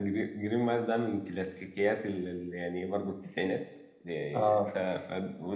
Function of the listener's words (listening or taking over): listening